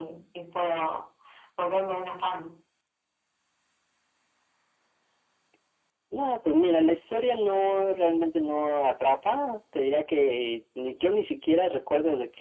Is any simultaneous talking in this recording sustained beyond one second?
No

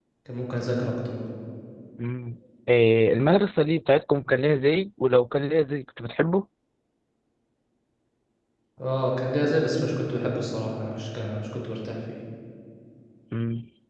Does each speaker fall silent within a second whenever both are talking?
Yes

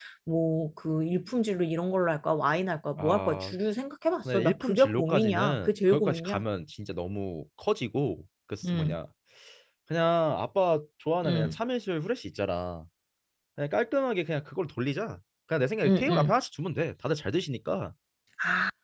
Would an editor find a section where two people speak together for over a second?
Yes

